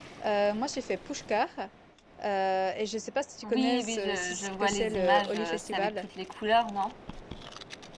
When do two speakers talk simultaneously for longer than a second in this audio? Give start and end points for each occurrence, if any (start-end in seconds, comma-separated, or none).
3.4-6.0